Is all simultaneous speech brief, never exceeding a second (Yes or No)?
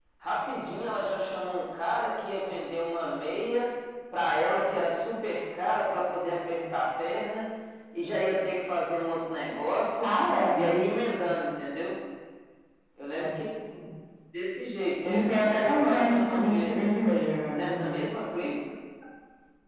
No